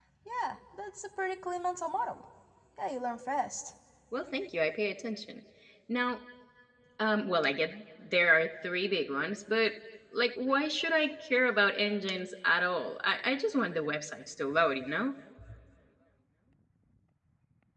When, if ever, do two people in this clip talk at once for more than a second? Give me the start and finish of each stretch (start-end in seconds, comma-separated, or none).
none